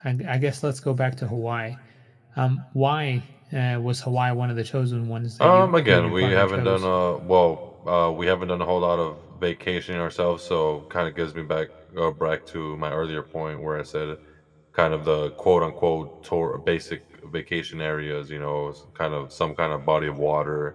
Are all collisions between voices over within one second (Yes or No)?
No